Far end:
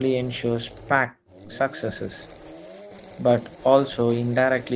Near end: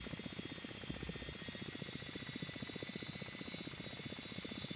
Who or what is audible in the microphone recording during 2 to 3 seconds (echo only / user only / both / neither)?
neither